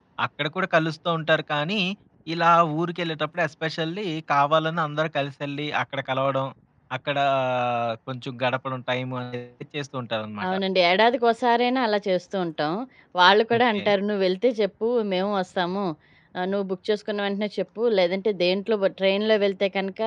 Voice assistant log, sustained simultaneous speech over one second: none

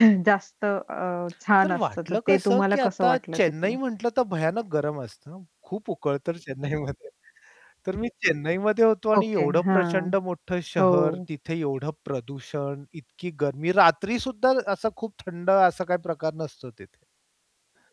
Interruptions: present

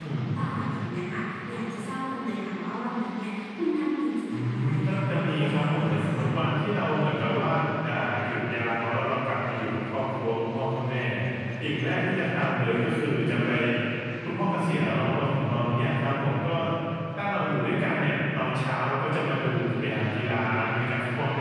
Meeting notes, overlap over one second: present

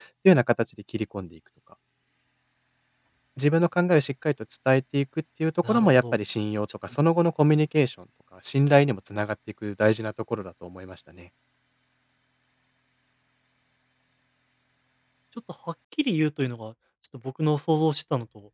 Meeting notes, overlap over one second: none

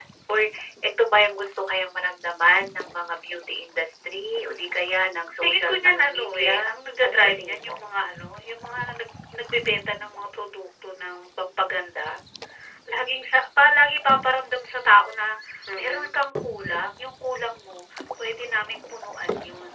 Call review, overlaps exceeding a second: present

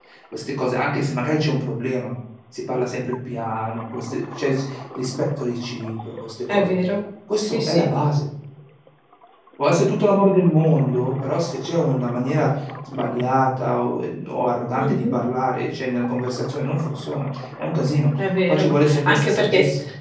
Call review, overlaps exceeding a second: present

